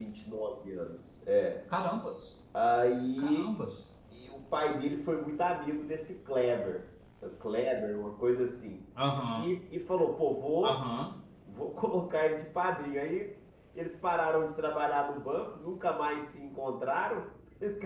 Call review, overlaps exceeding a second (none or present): none